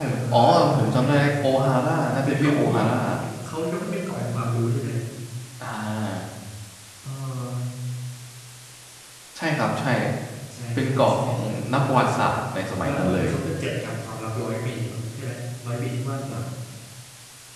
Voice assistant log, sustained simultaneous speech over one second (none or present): present